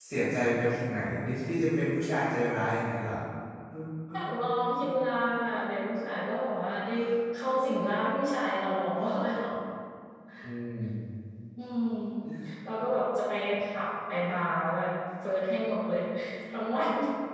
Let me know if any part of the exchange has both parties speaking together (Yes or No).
No